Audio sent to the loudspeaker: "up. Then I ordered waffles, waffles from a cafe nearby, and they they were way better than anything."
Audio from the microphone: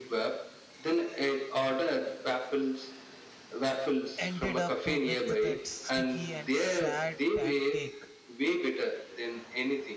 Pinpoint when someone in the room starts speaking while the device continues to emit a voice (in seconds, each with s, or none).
4.2 s